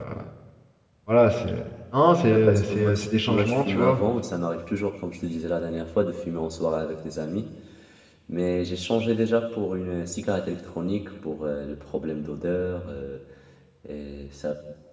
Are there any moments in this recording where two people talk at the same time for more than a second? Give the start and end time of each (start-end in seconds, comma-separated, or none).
2.3-4.0